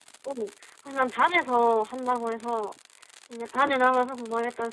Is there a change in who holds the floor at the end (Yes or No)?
No